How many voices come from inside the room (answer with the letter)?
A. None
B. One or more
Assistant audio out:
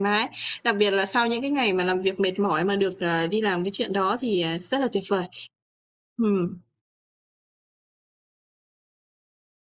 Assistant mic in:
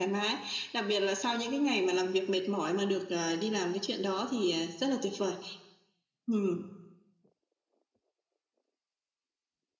A